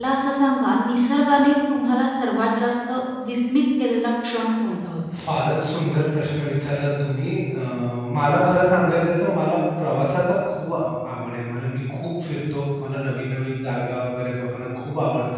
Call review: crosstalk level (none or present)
none